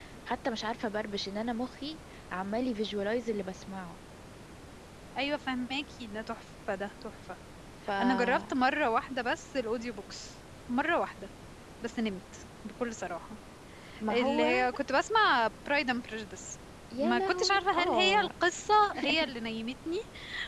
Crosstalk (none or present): present